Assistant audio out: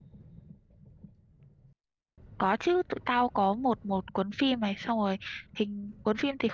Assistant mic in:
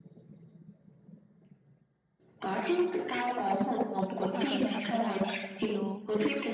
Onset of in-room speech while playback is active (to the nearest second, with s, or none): 4 s